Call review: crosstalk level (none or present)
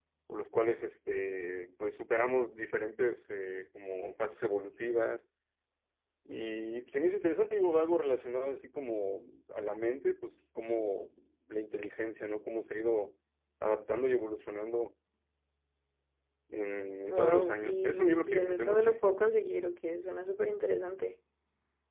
present